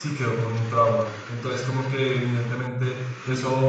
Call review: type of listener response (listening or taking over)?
listening